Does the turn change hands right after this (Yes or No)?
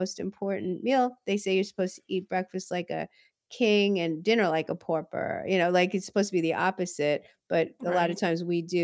No